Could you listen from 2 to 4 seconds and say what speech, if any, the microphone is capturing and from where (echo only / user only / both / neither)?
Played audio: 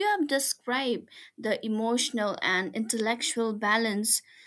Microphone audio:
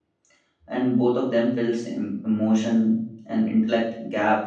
user only